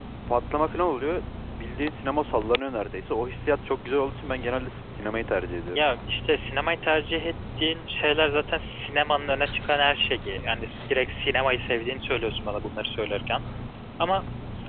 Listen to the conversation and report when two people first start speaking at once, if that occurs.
none

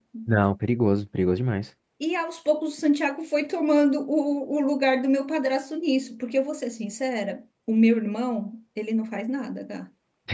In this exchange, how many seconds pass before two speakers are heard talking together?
none

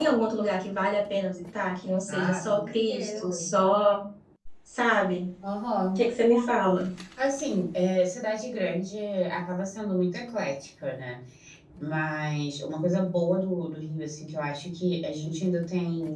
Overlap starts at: 2.1 s

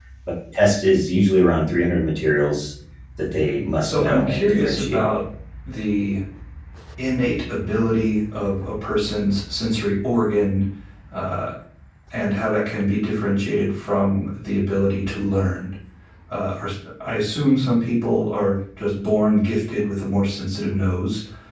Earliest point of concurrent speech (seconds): 3.8 s

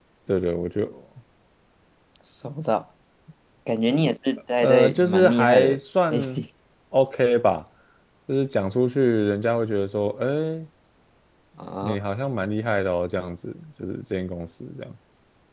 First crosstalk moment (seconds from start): 4.6 s

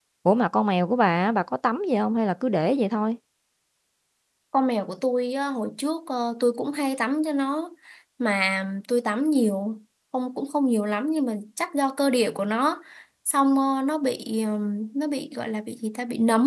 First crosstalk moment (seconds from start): none

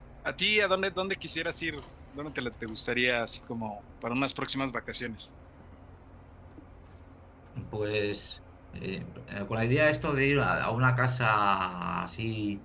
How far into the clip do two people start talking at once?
none

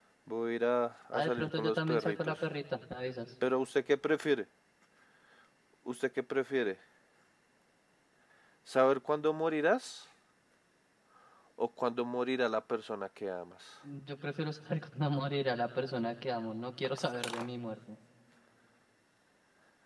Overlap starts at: 1.1 s

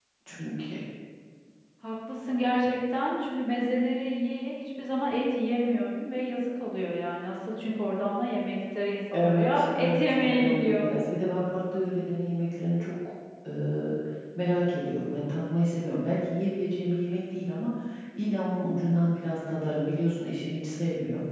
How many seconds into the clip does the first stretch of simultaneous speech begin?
9.1 s

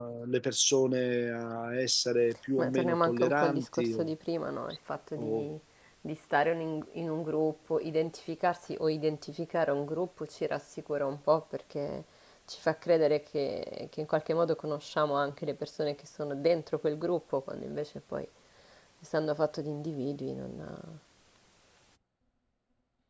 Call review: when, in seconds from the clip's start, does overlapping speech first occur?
2.5 s

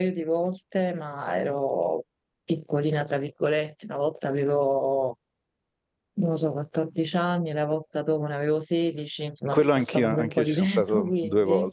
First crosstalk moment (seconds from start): 9.5 s

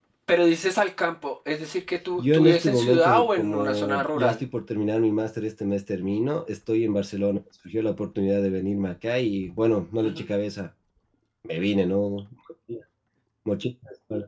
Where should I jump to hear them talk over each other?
2.2 s

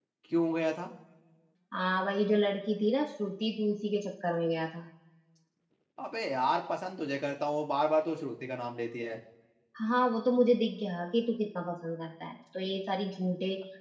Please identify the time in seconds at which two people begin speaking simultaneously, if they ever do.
none

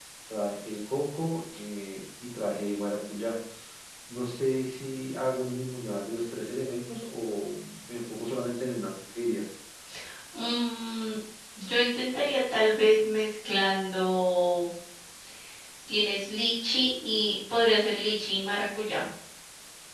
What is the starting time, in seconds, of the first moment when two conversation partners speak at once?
none

